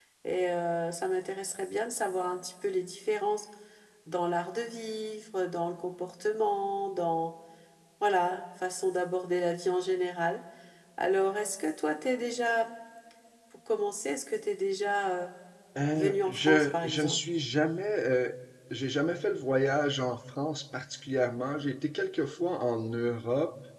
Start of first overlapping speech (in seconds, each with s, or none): 15.9 s